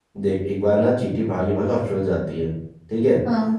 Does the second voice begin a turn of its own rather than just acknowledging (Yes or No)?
No